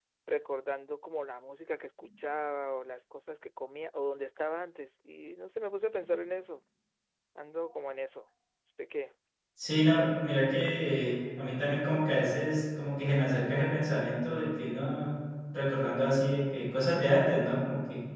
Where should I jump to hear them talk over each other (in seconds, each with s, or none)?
none